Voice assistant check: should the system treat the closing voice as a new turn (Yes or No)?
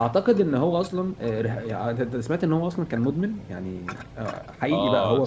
Yes